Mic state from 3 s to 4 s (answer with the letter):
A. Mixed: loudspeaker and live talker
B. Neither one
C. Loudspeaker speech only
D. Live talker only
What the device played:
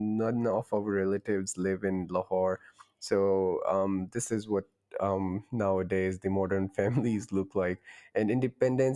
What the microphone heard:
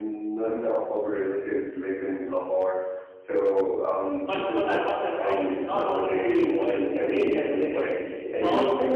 C